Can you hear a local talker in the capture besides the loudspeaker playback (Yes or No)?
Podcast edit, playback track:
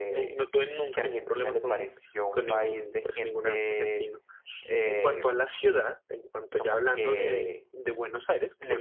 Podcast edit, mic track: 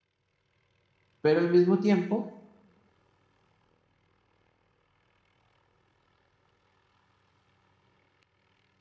Yes